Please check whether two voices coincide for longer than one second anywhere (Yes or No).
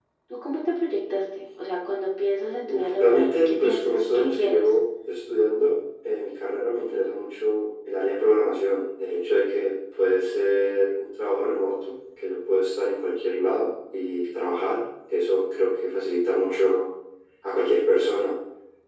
Yes